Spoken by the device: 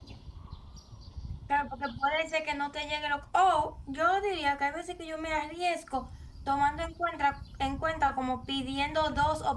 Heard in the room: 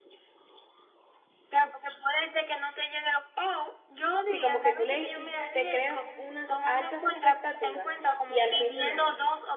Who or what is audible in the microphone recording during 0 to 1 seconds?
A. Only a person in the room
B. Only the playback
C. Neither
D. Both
C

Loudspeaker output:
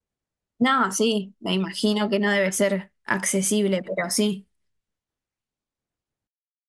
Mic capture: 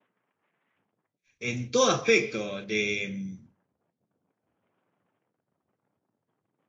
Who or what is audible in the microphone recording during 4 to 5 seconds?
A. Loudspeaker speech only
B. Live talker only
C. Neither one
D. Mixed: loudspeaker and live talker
C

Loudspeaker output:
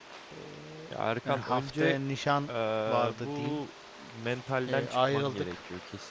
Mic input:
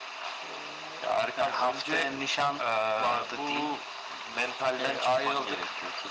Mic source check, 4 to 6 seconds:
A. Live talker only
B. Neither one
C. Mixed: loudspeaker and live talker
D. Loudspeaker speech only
D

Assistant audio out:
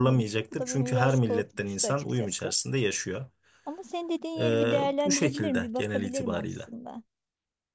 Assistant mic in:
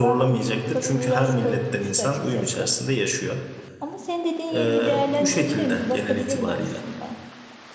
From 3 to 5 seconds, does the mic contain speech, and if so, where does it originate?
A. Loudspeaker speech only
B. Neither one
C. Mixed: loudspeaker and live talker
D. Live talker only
A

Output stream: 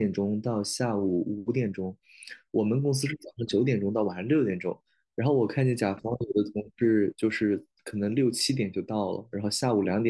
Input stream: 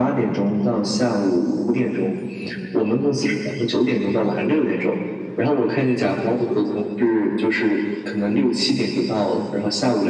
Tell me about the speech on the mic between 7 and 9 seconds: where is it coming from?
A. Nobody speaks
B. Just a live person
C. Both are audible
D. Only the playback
D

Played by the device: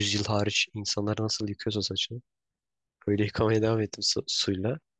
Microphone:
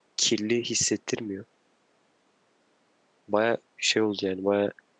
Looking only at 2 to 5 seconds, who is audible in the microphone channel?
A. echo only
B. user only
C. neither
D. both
B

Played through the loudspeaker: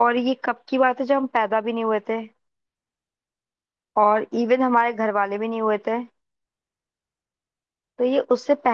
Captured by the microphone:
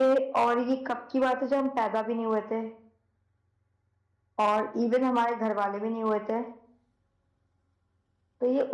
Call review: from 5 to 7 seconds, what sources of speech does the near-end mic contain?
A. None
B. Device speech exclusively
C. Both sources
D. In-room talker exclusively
B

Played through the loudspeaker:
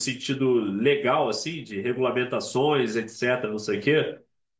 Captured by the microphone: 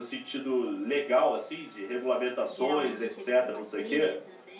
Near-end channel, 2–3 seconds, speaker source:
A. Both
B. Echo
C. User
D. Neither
A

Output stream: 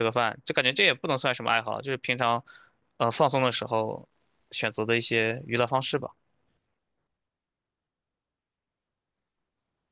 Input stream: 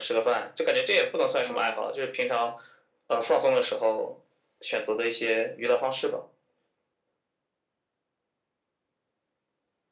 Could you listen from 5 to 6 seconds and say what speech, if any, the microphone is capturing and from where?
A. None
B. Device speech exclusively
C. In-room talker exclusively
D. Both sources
B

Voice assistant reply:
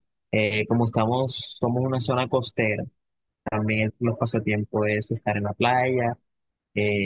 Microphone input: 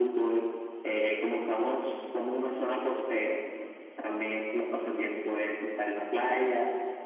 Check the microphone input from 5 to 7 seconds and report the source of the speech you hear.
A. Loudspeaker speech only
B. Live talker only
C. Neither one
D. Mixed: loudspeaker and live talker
A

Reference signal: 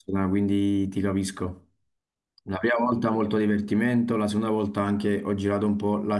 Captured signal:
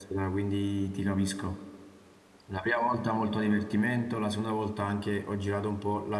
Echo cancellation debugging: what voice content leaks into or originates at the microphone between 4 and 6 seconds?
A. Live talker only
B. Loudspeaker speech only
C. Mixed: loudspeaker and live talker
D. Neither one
B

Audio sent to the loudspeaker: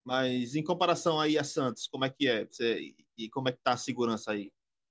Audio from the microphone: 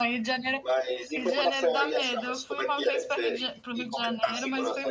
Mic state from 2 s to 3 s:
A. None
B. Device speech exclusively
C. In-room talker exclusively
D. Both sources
D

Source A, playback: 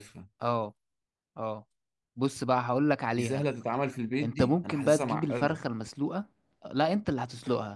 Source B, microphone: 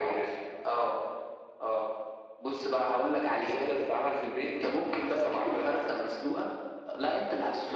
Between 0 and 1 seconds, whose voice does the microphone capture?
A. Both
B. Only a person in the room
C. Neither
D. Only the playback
D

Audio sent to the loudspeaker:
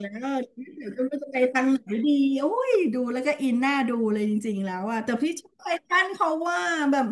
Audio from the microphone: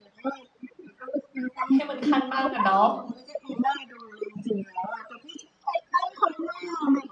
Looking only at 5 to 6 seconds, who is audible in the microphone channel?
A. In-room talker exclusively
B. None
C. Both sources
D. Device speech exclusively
D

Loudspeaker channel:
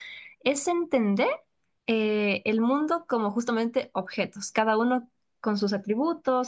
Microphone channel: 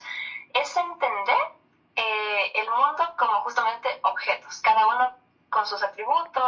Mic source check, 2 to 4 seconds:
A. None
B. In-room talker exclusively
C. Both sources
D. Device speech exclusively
D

